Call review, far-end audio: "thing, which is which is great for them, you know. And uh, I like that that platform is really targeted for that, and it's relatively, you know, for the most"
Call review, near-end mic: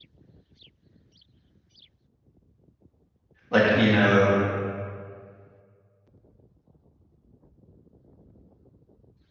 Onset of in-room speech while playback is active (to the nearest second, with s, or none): 3 s